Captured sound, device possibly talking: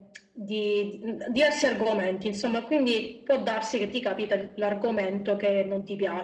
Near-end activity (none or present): none